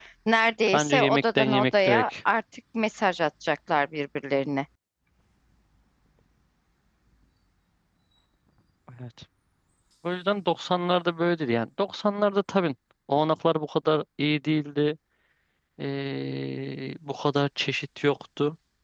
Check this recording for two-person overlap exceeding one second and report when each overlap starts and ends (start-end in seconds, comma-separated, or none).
0.7-2.0